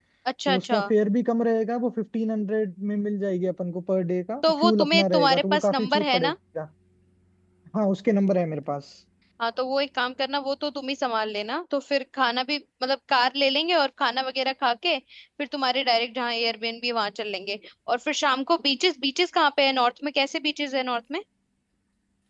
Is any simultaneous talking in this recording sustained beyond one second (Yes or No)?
Yes